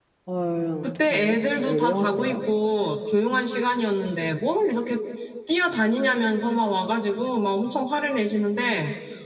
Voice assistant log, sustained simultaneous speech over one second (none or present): present